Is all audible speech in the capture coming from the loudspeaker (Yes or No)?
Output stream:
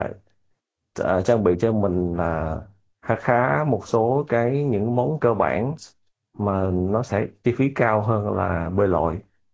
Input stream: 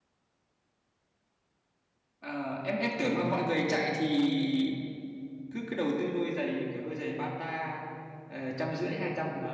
No